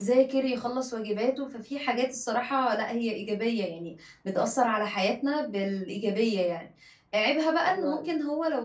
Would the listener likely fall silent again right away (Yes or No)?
Yes